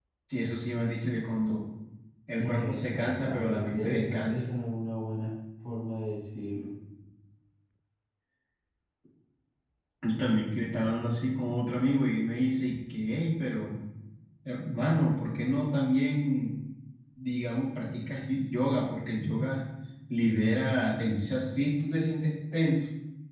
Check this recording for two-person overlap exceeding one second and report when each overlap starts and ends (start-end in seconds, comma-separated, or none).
2.4-4.5